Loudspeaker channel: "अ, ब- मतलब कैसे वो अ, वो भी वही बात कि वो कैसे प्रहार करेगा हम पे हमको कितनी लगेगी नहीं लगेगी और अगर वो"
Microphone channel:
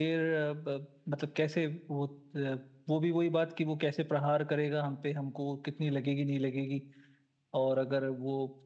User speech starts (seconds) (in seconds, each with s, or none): none